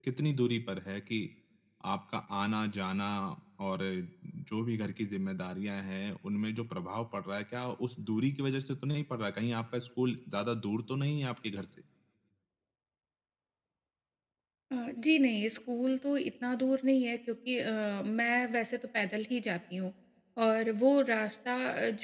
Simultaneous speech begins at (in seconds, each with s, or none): none